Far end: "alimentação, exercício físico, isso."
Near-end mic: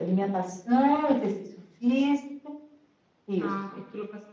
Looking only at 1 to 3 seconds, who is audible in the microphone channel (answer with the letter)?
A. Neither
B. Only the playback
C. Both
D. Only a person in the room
B